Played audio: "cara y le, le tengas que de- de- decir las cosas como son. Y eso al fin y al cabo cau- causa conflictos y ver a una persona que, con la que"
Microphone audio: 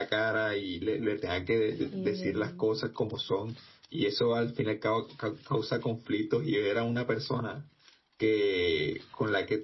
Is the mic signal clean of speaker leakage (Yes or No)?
No